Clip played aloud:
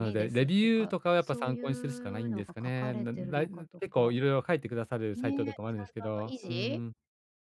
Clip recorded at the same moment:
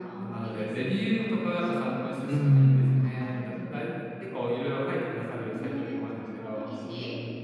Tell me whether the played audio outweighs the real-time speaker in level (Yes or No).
No